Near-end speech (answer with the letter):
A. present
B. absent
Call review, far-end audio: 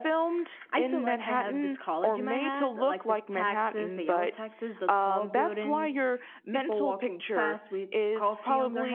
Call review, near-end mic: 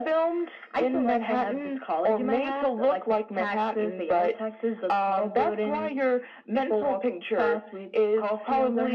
B